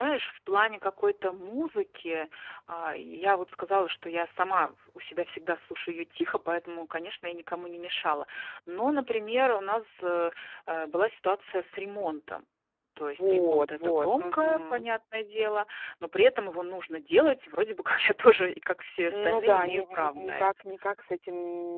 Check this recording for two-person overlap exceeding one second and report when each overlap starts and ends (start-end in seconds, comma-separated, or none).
13.2-14.8, 19.1-20.5